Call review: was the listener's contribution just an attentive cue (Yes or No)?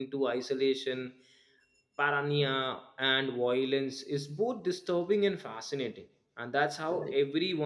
No